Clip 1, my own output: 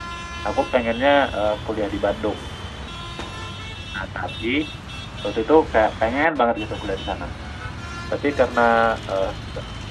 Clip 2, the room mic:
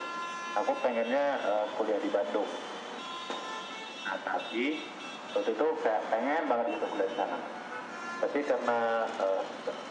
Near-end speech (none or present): none